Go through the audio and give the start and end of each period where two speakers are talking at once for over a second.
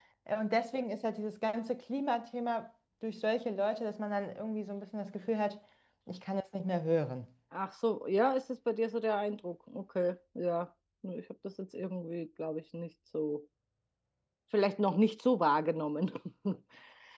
none

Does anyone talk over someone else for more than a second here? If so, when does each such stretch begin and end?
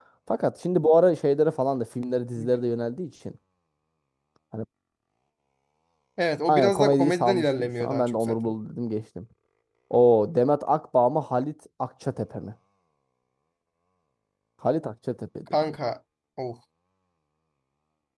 6.5-8.4

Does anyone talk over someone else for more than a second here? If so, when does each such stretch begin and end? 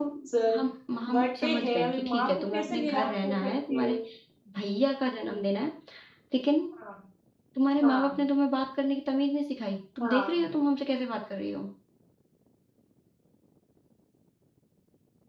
1.1-4.0

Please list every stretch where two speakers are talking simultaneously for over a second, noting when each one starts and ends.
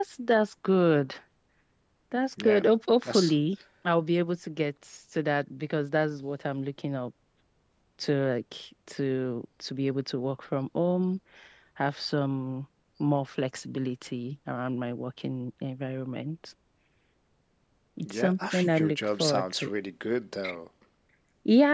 18.1-19.7

